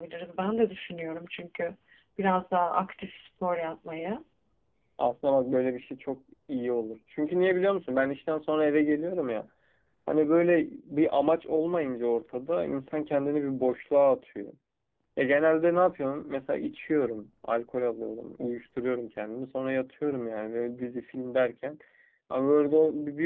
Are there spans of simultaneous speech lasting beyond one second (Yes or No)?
No